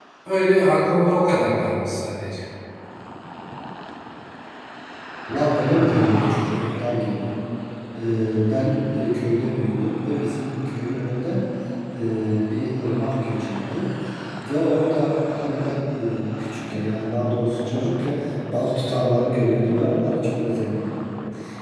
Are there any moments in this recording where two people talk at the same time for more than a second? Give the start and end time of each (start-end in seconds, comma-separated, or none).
none